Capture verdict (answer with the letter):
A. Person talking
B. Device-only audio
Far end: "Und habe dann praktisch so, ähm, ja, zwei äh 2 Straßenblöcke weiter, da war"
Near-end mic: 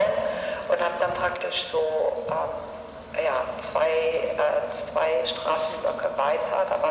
B